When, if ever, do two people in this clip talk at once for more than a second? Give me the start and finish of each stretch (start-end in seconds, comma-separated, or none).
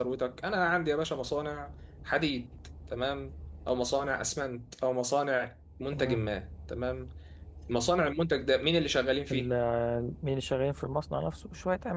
none